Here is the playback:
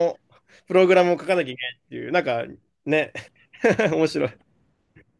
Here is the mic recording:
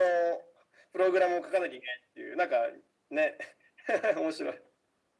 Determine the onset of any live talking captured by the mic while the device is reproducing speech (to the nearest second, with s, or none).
none